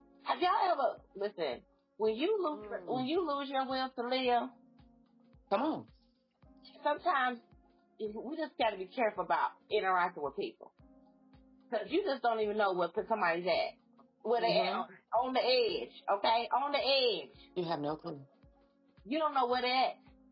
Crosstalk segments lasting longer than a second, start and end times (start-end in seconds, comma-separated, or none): none